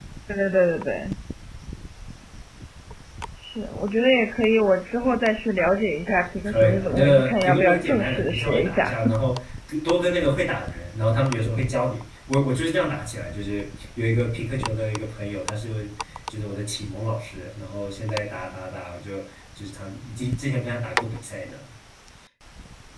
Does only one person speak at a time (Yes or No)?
No